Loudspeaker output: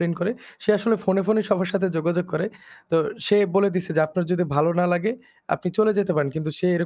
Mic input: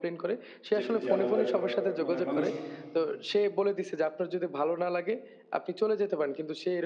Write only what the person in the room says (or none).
যেট যেন ওদের অ্যা মানে মানুষ